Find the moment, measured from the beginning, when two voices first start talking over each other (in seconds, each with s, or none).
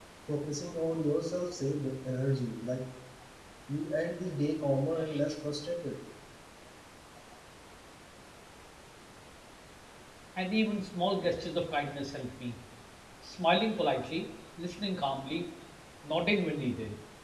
none